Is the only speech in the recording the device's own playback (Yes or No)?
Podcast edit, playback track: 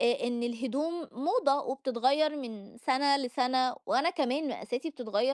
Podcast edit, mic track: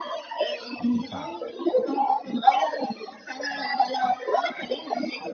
No